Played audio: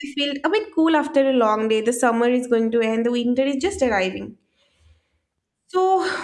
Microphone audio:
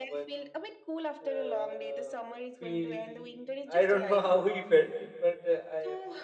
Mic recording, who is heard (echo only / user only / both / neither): both